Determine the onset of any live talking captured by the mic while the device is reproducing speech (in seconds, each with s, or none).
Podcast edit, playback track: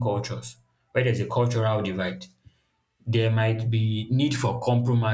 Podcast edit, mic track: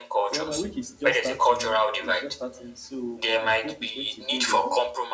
0.3 s